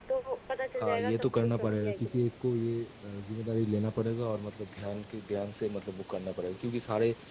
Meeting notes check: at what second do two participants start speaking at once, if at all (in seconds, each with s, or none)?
0.8 s